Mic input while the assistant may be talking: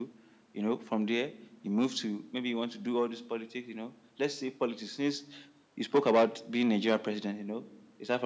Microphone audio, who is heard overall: echo only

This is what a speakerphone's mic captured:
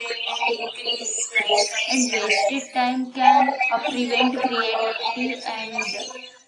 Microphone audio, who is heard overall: both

